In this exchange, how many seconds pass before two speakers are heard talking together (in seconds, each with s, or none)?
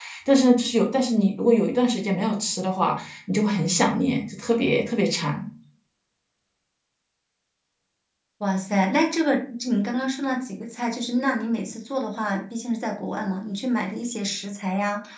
none